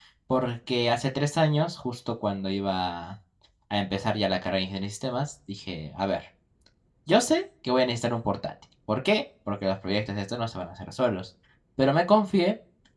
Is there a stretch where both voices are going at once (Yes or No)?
No